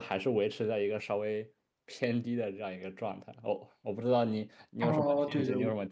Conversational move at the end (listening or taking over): taking over